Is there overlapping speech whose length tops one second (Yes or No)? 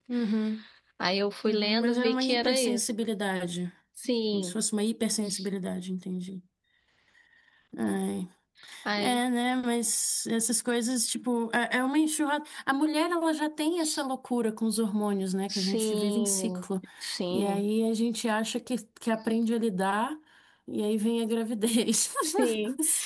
Yes